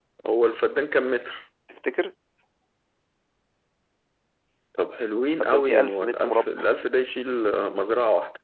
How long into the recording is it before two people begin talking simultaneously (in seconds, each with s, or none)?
5.4 s